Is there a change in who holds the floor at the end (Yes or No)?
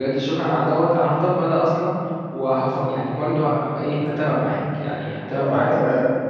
Yes